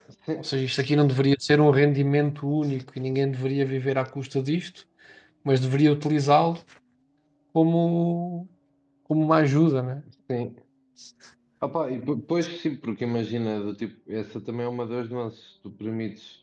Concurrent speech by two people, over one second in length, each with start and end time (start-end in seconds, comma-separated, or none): none